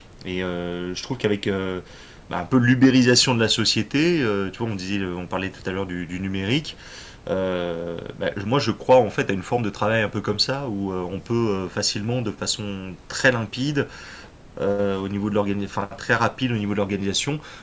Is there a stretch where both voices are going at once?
No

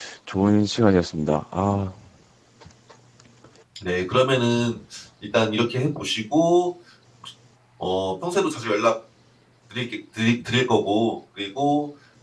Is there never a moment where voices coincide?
Yes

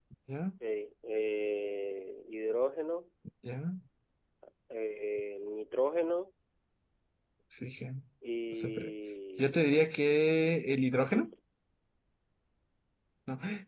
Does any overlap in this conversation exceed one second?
No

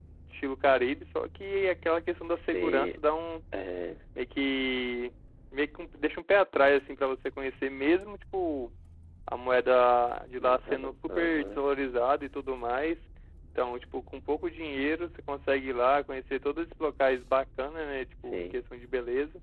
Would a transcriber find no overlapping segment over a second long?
No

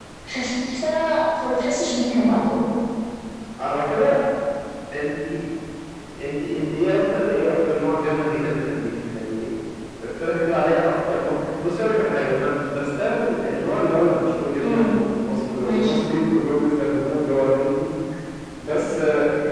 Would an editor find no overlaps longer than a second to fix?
Yes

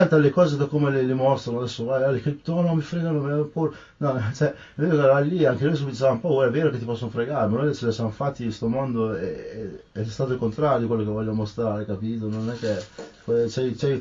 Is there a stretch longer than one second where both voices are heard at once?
No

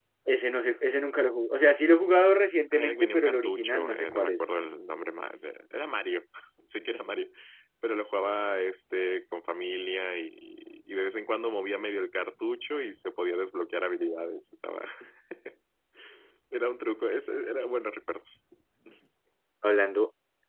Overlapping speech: Yes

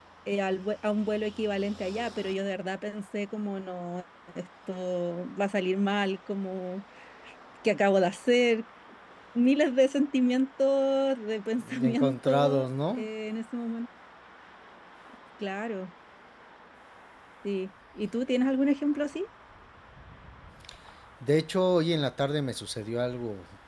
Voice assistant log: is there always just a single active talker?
No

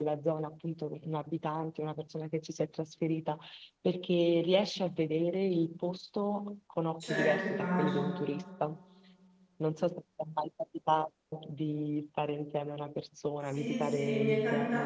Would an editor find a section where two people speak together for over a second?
Yes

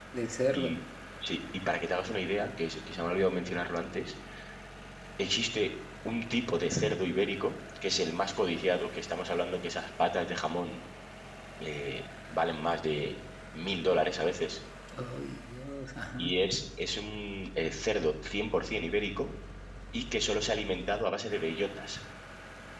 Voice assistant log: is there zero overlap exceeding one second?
Yes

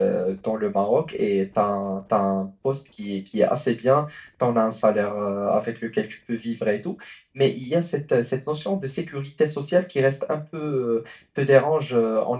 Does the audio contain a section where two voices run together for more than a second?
No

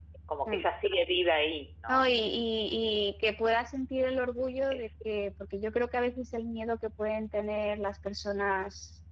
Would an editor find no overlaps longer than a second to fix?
Yes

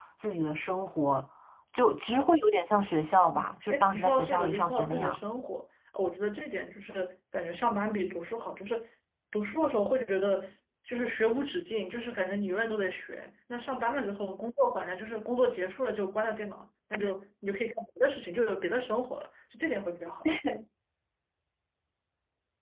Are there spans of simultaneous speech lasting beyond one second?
Yes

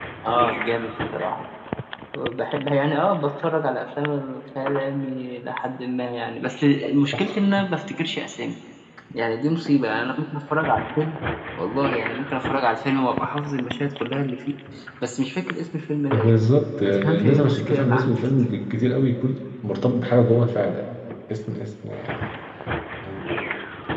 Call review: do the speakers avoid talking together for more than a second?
No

